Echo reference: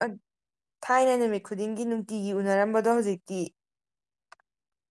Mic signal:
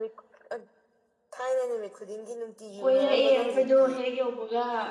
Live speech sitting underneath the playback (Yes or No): No